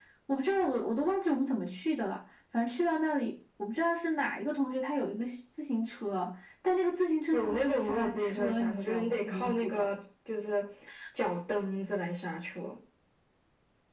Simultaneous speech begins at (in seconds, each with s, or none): 7.3 s